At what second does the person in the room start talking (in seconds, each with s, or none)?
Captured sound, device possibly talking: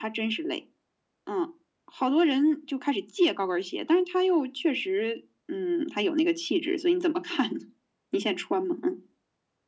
none